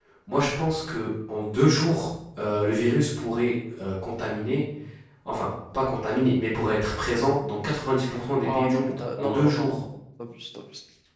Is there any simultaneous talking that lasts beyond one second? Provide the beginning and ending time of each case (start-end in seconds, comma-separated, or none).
8.4-9.8